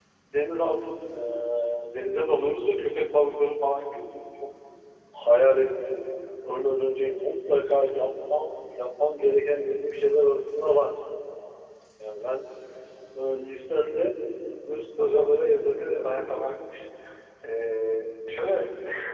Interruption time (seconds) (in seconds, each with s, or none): 15.0 s